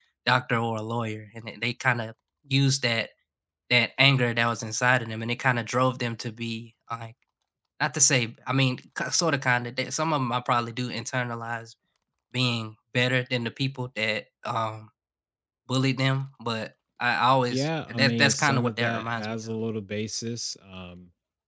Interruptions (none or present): present